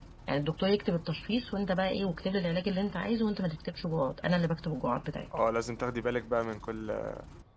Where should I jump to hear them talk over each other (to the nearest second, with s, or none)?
none